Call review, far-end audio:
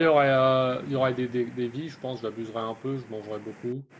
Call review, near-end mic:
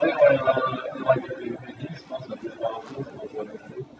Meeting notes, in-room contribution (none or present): none